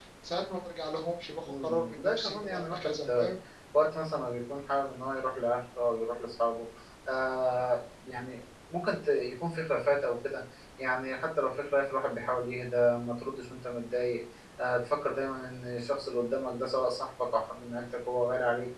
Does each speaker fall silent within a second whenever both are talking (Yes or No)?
No